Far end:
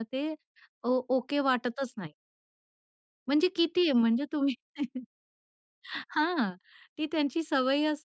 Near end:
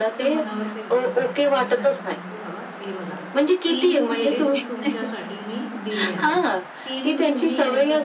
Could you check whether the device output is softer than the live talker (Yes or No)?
No